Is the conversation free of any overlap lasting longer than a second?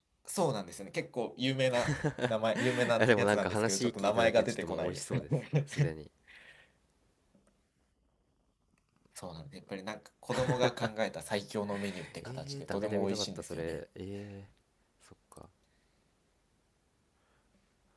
No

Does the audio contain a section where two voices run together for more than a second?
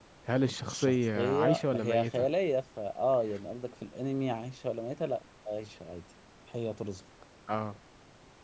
Yes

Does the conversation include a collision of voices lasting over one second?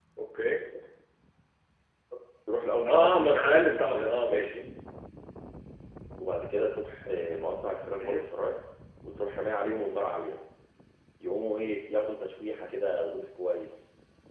Yes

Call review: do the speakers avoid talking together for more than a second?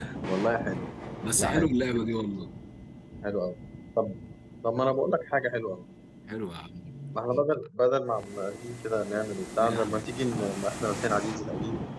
Yes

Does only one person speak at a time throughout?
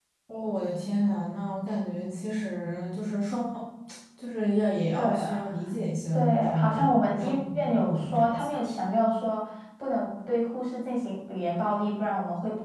No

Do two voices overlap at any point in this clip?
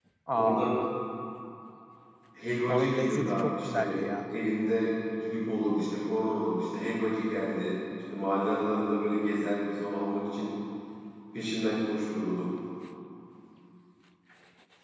Yes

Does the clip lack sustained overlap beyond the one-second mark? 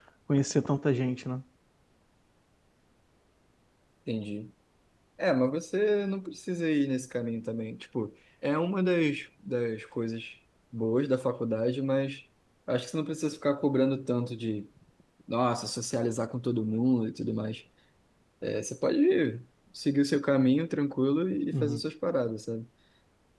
Yes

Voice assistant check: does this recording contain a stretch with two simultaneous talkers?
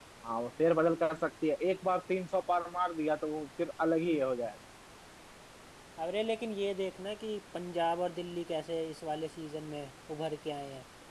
No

